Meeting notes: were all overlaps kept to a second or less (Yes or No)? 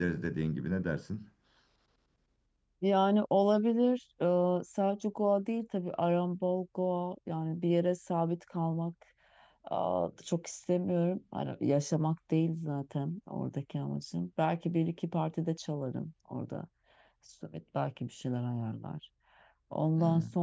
Yes